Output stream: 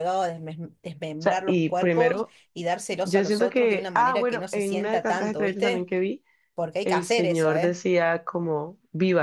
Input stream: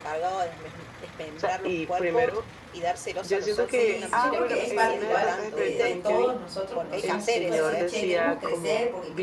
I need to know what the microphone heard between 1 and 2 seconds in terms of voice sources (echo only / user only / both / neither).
echo only